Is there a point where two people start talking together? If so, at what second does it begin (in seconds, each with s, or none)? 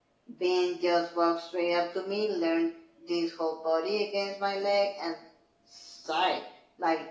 none